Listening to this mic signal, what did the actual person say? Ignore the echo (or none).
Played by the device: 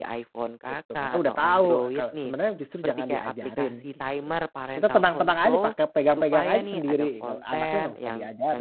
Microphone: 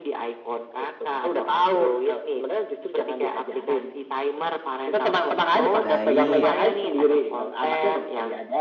Baik,